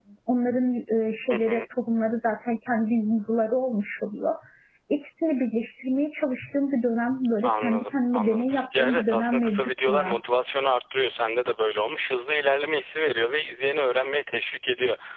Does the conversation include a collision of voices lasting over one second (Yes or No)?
Yes